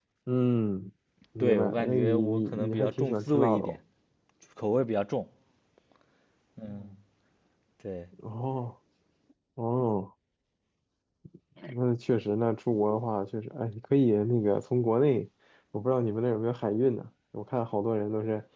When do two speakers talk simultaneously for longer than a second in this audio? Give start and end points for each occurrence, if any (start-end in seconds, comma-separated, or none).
1.4-3.8